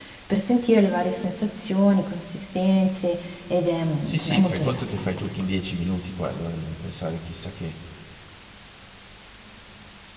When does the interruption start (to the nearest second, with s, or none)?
4 s